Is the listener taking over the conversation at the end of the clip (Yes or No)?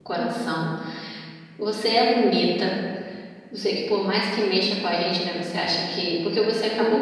No